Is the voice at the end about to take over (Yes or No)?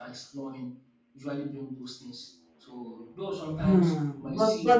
Yes